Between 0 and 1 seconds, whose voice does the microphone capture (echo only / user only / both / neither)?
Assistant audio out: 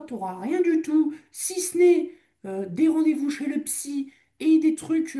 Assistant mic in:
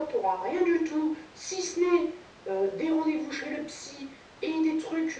echo only